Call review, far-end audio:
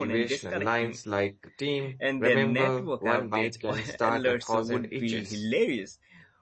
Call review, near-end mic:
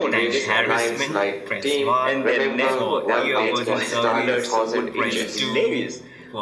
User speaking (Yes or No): Yes